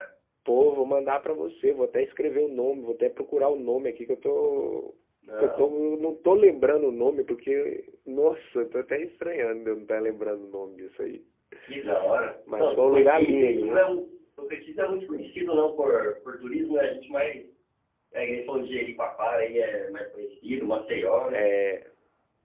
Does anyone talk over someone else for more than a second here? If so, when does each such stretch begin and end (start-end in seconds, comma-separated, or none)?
12.6-13.8